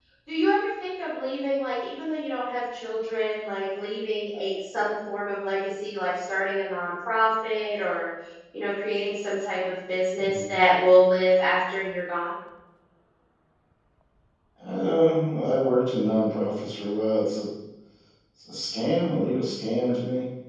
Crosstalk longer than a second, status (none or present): none